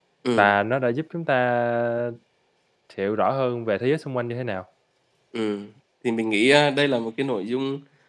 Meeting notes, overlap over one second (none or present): none